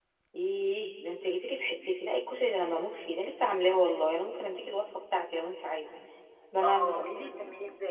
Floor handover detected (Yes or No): Yes